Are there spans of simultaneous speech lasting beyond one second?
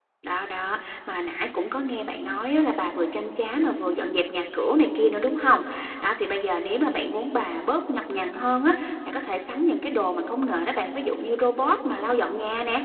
No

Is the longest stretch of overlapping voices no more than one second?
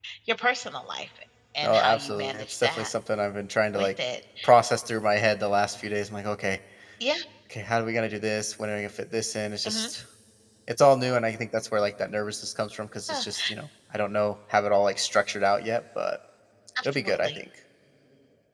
No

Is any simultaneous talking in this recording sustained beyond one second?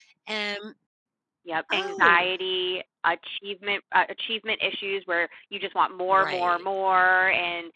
No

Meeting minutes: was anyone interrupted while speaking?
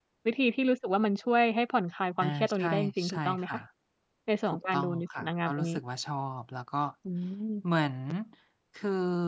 Yes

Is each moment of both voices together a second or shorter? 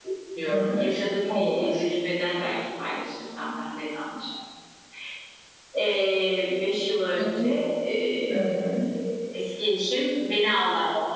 Yes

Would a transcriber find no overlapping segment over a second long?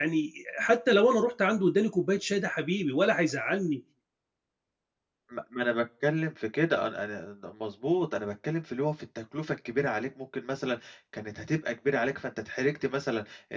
Yes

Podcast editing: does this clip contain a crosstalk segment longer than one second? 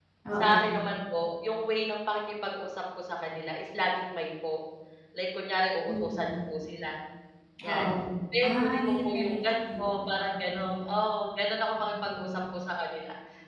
Yes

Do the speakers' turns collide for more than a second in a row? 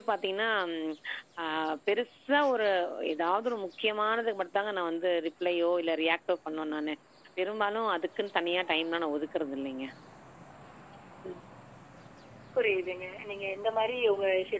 No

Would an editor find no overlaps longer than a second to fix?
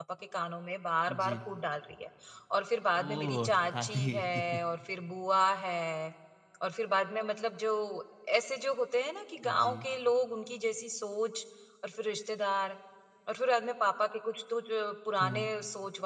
No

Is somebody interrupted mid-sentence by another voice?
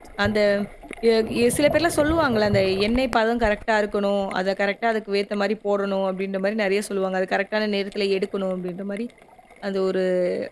No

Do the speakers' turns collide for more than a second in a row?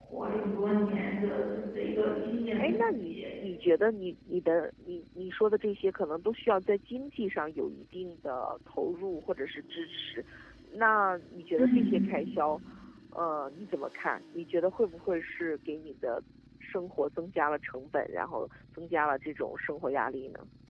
Yes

